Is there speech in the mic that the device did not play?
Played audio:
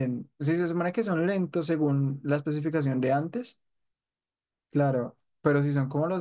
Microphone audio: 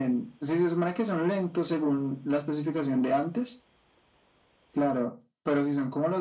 No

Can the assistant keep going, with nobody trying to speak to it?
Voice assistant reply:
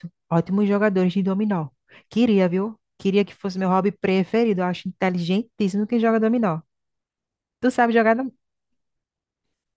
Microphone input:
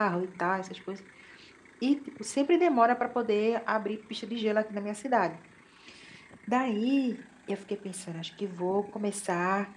No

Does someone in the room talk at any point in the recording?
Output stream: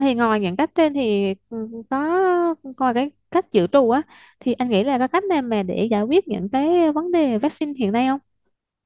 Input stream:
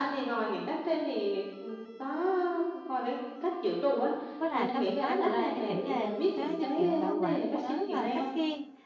Yes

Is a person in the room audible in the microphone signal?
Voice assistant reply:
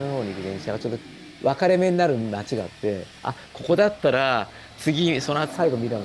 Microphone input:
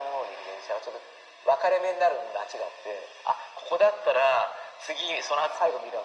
No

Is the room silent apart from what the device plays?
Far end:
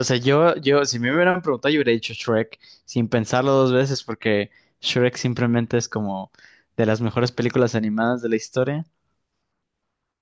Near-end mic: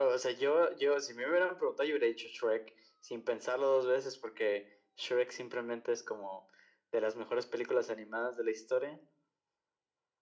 Yes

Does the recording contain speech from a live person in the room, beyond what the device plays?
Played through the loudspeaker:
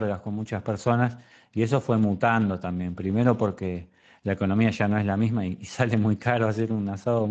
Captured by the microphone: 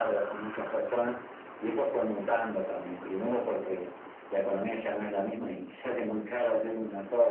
No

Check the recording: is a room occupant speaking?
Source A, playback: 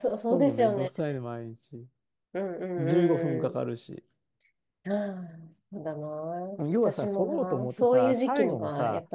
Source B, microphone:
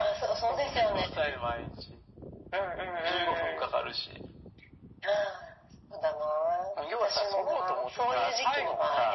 No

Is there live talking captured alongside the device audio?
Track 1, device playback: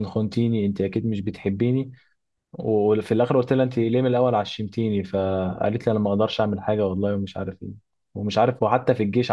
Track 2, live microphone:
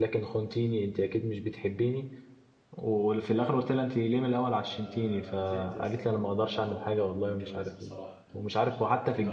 Yes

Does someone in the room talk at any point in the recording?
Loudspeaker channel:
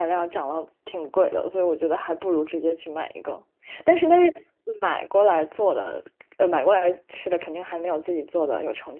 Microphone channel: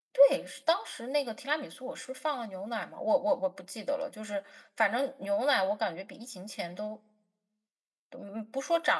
Yes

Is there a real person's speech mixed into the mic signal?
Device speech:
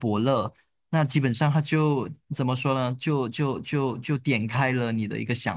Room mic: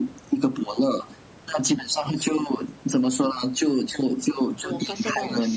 Yes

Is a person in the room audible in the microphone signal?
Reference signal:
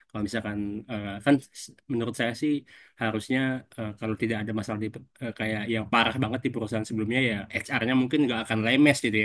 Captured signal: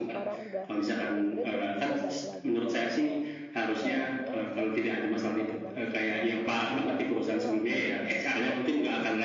Yes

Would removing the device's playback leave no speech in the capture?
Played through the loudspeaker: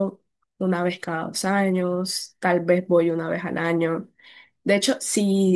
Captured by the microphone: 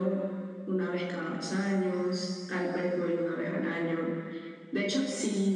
Yes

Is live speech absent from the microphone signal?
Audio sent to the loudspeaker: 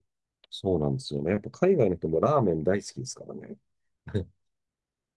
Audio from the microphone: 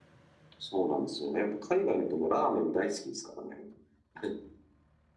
Yes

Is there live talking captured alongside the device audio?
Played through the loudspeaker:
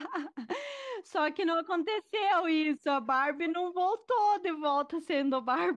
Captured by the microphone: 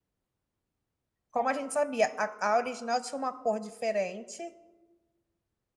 Yes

